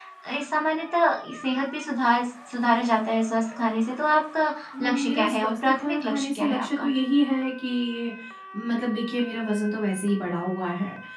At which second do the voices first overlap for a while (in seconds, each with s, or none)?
4.7 s